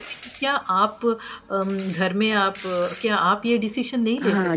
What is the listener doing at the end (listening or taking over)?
taking over